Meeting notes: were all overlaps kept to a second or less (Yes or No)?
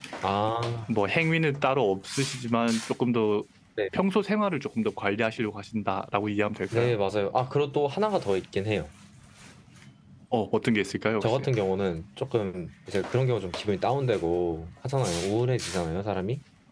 Yes